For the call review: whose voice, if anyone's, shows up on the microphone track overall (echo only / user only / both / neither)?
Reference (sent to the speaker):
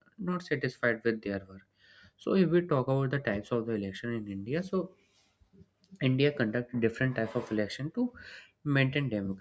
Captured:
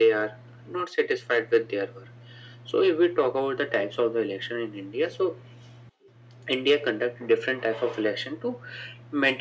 echo only